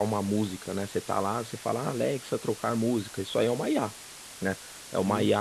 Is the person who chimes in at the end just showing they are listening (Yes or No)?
Yes